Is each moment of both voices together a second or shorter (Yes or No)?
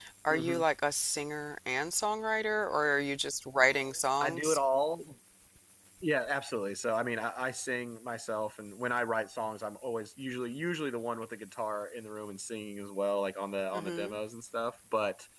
Yes